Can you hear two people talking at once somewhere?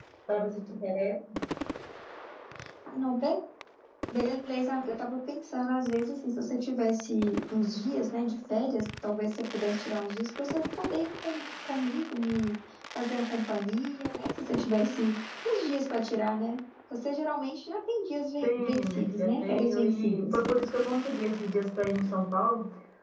Yes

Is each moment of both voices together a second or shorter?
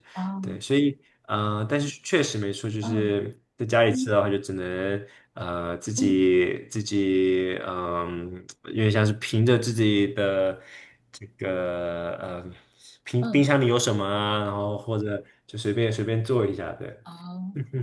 Yes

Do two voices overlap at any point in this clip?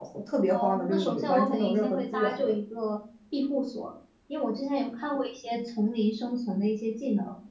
Yes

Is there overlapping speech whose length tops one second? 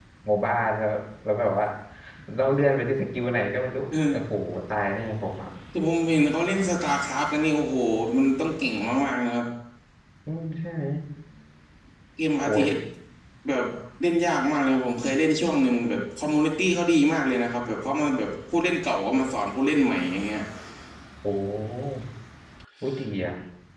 No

